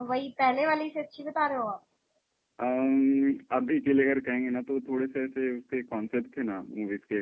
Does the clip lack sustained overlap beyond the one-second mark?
Yes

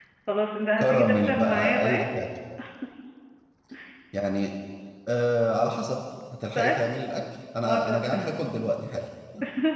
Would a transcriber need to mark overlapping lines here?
Yes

